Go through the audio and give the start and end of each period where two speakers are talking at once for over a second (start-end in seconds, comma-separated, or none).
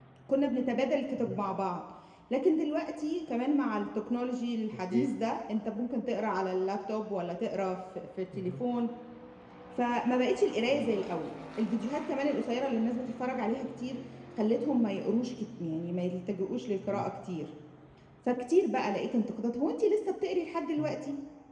none